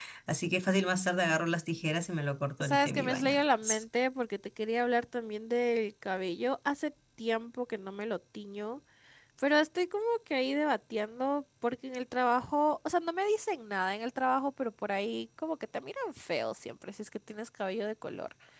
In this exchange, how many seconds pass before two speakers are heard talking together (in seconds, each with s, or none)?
2.6 s